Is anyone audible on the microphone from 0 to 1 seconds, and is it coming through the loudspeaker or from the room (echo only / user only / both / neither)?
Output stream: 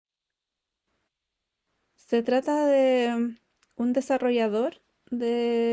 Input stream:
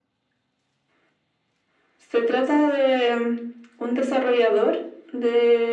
neither